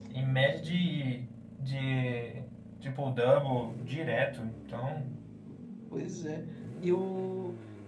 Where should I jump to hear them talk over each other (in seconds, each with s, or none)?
none